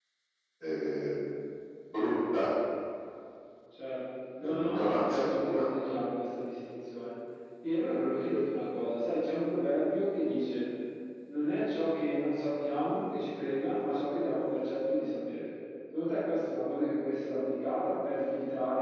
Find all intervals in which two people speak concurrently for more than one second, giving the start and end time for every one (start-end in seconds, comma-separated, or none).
4.4-5.7